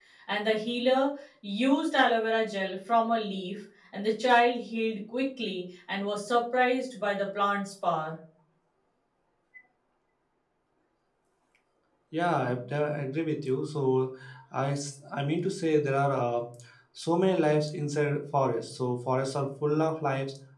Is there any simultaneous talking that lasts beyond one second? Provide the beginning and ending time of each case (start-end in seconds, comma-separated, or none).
none